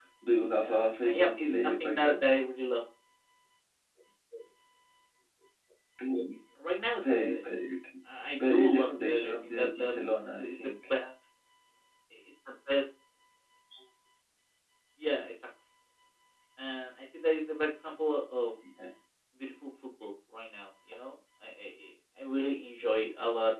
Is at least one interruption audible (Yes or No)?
Yes